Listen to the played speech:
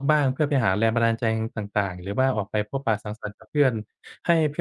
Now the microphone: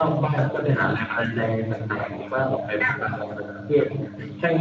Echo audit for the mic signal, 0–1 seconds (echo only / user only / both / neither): echo only